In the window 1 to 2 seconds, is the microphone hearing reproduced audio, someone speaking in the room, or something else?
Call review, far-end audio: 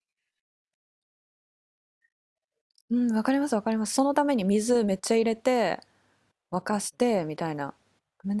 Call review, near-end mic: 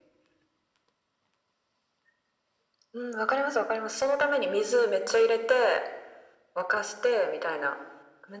neither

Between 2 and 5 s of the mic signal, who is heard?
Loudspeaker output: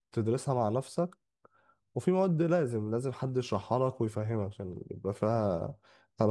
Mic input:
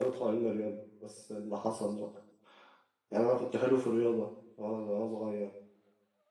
user only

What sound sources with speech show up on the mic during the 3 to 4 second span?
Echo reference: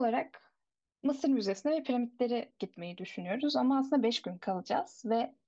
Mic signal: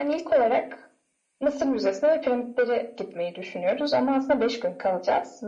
echo only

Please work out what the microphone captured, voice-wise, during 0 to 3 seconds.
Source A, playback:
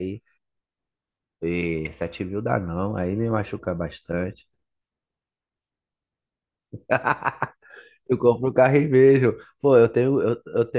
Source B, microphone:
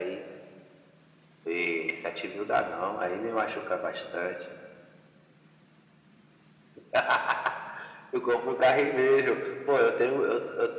echo only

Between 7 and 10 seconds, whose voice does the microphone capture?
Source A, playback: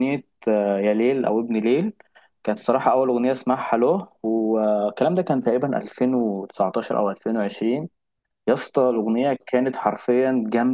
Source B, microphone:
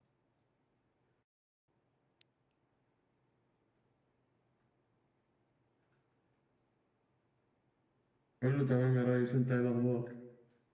user only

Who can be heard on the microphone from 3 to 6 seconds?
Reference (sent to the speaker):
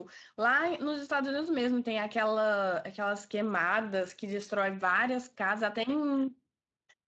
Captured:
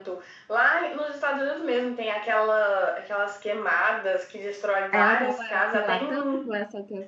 both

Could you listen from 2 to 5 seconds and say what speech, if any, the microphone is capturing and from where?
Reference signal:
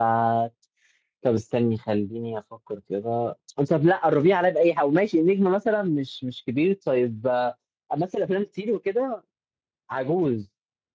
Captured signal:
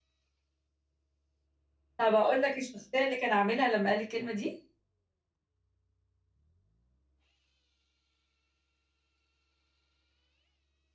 user only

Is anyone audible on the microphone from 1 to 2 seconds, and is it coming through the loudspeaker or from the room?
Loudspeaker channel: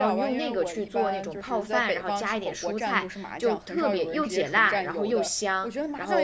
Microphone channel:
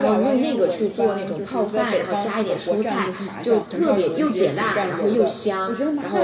echo only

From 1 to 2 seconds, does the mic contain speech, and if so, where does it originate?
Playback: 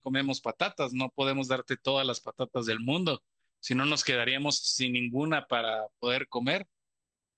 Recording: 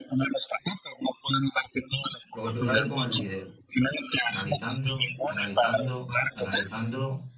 echo only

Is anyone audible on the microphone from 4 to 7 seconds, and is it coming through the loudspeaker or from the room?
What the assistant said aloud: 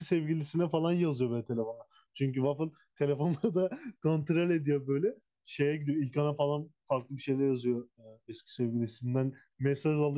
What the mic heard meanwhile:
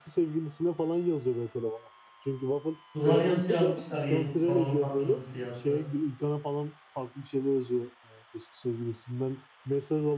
both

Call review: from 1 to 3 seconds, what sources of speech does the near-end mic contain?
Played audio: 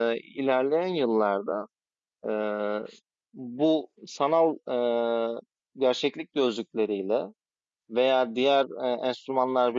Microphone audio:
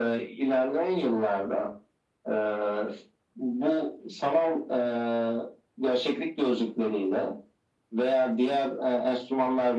echo only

